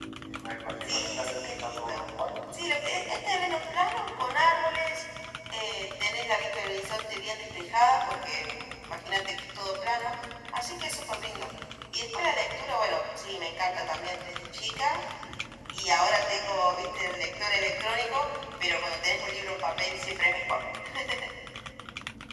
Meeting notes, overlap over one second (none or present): present